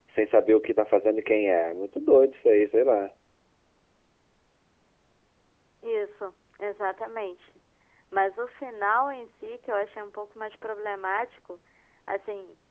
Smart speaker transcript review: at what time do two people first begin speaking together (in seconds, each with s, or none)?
none